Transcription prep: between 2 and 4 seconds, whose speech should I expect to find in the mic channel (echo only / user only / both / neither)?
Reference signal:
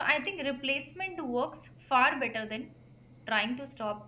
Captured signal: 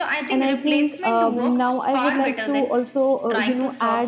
both